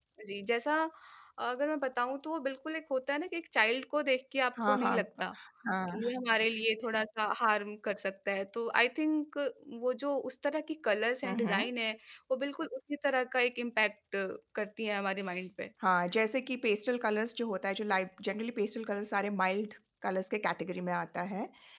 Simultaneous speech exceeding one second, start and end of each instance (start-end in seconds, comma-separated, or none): none